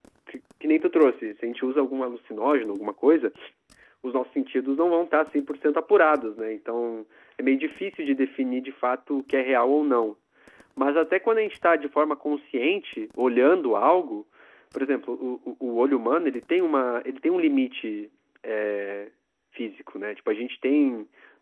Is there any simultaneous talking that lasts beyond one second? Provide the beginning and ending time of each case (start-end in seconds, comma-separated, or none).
none